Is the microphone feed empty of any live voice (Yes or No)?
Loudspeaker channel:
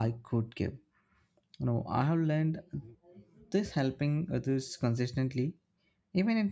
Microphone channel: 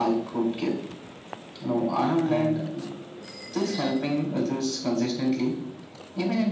No